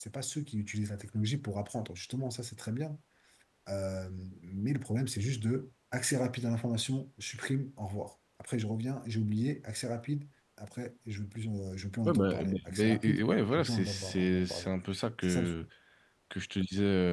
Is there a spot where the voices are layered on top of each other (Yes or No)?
Yes